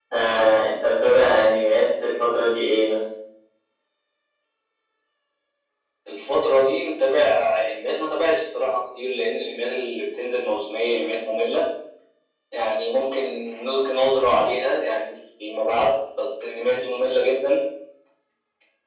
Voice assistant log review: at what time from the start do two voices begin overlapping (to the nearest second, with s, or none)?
none